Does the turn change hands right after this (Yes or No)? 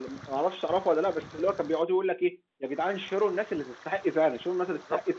No